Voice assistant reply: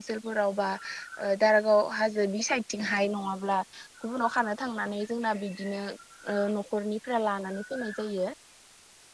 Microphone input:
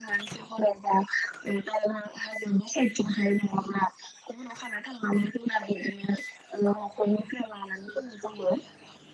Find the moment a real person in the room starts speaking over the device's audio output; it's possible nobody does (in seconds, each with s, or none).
none